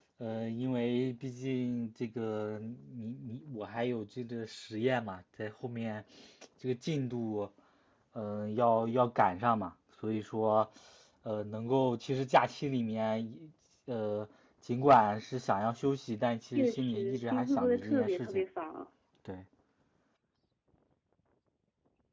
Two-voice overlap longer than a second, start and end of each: 16.6-18.4

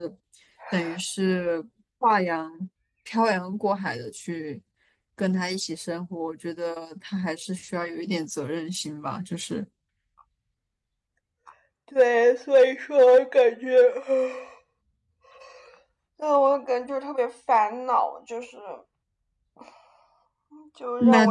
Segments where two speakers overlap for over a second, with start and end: none

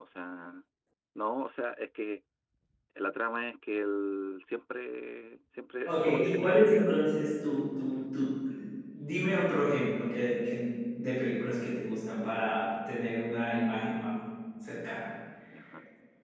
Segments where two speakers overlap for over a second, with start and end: 5.8-7.1

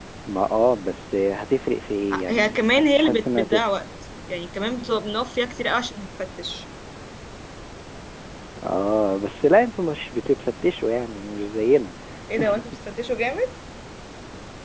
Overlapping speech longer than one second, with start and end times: 2.3-3.6

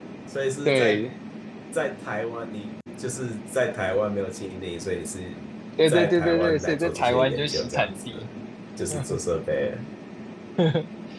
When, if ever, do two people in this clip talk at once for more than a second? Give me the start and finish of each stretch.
5.9-8.3

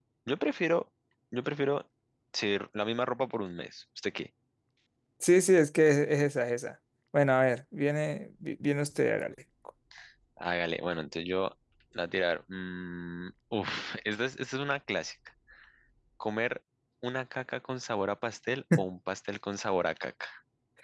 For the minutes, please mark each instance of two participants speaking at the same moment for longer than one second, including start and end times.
none

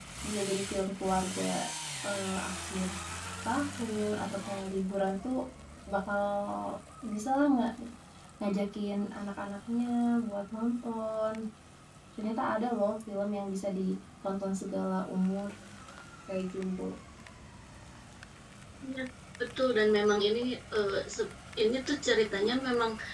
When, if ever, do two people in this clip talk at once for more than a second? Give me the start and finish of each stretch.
none

